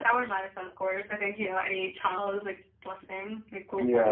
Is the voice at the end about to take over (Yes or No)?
Yes